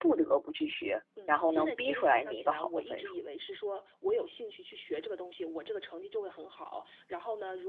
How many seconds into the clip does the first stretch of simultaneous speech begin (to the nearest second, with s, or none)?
1 s